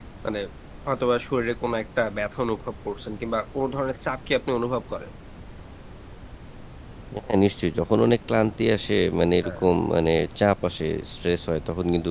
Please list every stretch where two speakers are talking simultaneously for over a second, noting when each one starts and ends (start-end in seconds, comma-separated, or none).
none